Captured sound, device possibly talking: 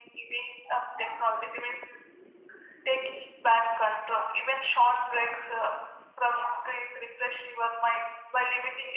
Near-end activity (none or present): none